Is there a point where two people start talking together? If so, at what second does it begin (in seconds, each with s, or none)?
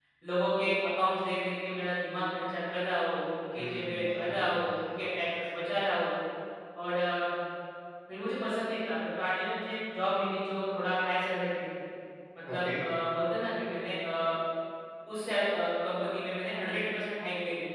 3.6 s